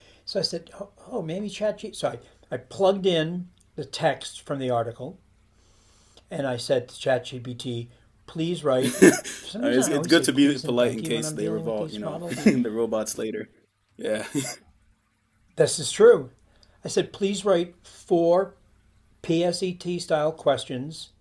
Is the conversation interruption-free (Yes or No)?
No